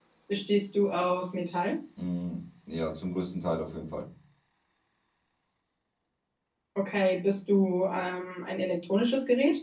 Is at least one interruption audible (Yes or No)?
No